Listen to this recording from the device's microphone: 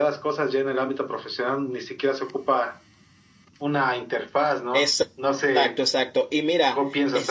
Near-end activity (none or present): present